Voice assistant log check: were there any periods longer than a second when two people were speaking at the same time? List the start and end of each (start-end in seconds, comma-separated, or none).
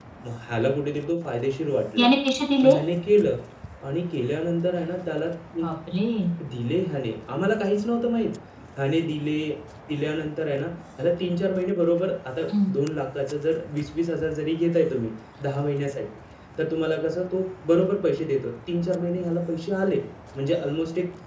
none